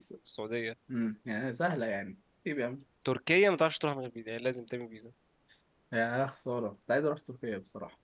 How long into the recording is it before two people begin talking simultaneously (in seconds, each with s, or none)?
none